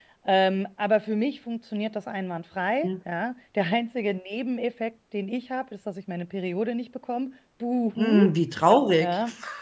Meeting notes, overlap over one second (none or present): none